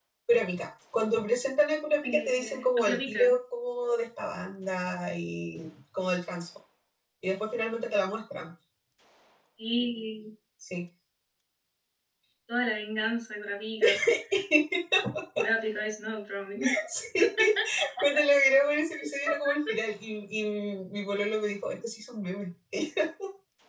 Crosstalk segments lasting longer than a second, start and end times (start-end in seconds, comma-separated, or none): 2.0-3.3